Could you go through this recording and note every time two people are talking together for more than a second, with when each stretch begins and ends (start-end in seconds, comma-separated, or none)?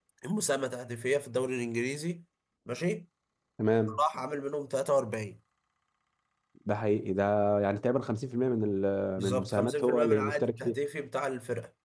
9.2-10.8